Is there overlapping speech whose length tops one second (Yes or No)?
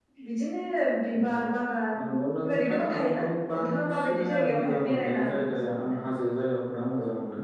Yes